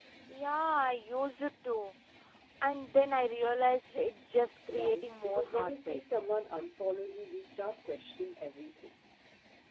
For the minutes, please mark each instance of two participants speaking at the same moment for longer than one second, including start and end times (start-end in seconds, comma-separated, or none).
4.7-6.0